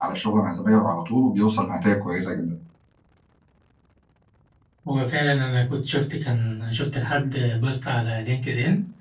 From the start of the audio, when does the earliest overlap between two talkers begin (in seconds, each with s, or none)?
none